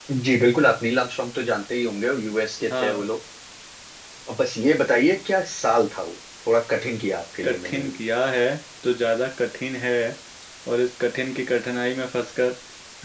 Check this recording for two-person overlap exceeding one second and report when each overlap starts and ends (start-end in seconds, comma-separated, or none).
none